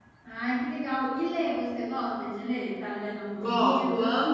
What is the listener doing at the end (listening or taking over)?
taking over